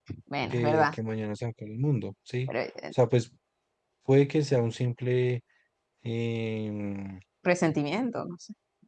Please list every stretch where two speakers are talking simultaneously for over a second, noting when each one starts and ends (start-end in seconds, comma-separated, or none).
none